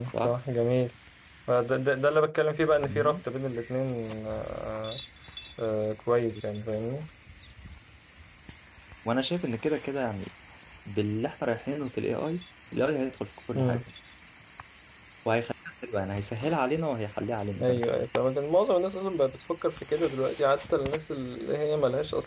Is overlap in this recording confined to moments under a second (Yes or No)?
Yes